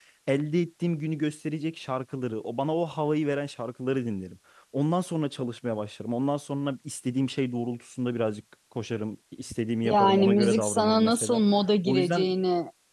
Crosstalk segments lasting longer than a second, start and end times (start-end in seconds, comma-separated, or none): 9.8-11.4